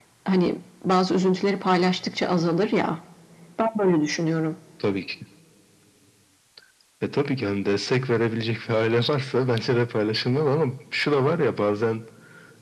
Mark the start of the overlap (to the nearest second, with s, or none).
none